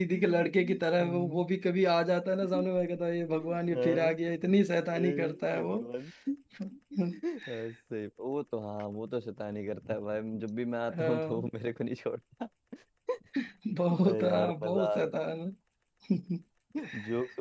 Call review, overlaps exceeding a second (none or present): present